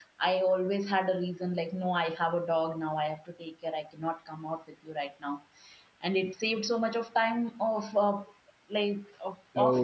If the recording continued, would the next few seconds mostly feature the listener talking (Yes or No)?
Yes